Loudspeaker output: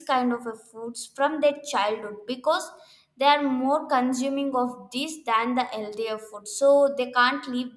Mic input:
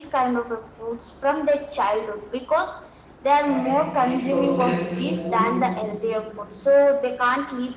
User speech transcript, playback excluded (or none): and the processed food